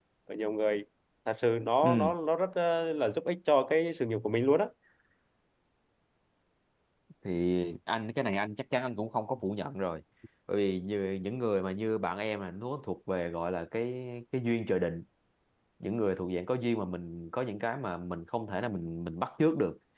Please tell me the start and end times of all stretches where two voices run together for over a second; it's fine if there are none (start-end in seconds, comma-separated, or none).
none